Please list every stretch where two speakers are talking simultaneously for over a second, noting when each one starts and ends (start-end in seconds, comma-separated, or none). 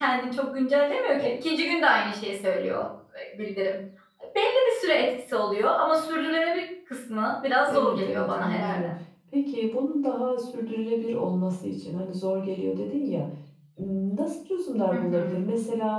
7.7-8.9